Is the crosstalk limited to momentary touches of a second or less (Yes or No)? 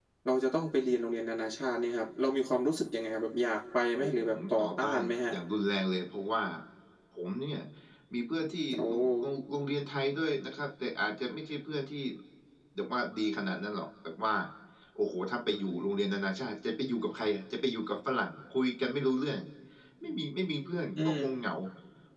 No